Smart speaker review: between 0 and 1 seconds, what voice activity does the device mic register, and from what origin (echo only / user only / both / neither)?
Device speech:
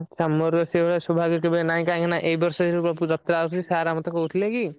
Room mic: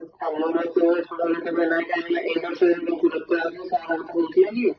echo only